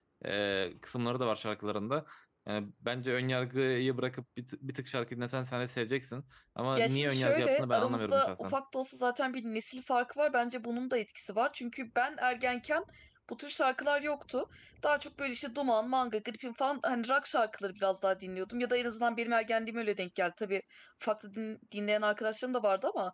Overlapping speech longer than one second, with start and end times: 6.8-8.6

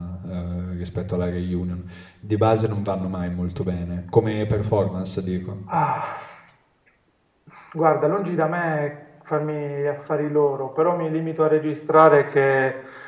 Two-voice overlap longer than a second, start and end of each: none

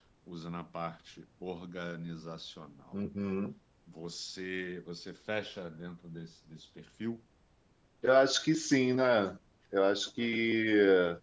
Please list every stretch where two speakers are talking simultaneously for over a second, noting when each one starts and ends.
none

